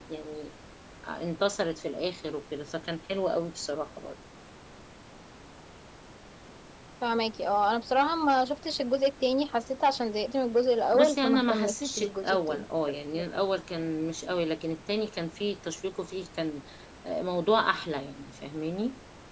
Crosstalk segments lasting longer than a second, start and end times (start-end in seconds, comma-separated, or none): 10.9-12.6